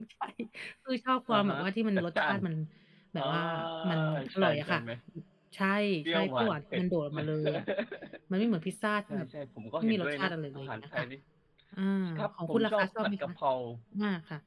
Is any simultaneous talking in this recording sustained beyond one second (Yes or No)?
Yes